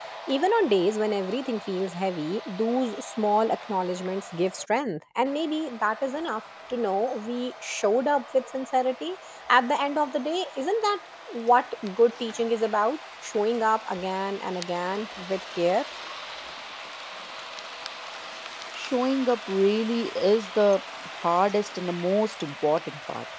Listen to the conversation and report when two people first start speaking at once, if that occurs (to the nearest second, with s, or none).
none